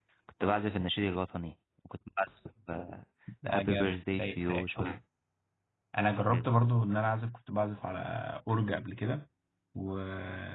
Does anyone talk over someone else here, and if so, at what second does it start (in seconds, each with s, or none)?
3.5 s